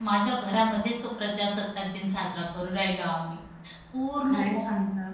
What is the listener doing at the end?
taking over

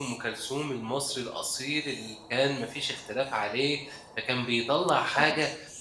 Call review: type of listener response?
listening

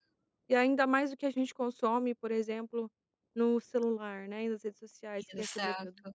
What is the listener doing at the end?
listening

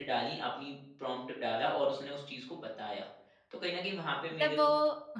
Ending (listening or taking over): taking over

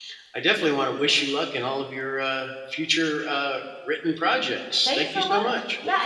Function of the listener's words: taking over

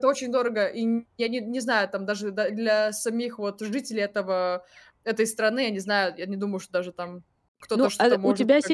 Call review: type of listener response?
taking over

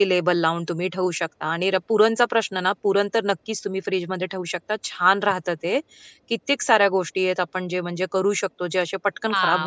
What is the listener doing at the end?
taking over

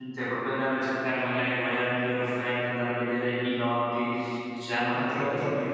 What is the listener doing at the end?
taking over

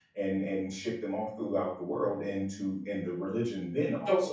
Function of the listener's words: listening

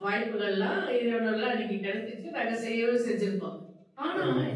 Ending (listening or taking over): listening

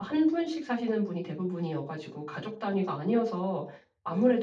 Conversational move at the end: listening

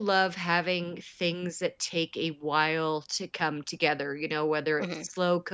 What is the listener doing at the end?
listening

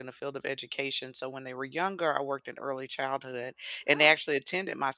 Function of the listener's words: listening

